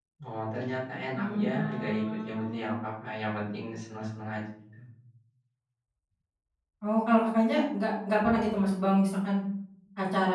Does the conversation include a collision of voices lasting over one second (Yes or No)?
Yes